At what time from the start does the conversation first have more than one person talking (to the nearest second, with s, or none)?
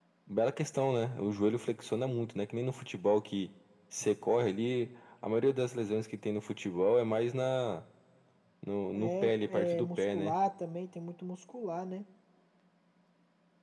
9 s